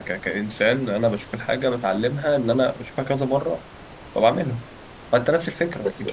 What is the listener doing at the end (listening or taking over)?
taking over